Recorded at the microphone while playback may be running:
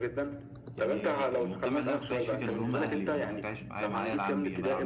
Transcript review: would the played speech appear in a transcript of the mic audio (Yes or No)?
Yes